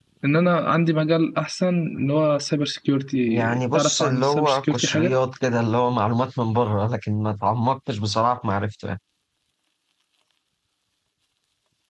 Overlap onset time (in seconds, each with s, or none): 3.3 s